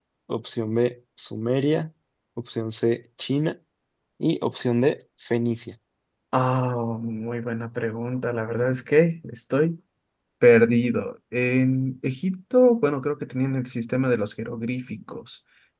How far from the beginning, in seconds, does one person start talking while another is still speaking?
none

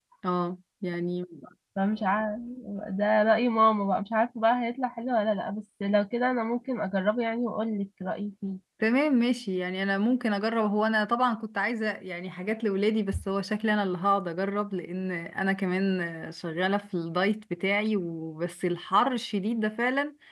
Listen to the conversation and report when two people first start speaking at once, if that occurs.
none

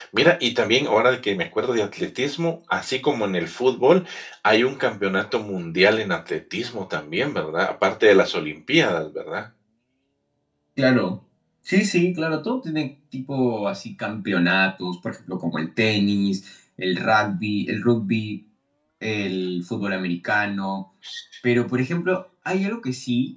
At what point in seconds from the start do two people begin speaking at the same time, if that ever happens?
none

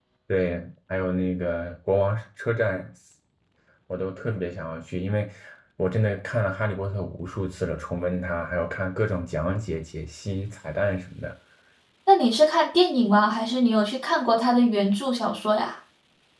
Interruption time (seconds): none

